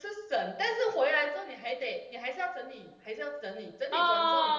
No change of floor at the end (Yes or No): No